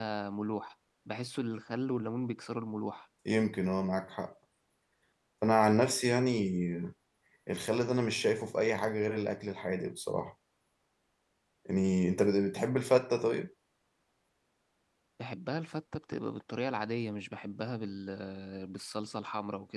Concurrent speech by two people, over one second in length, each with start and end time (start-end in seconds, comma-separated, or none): none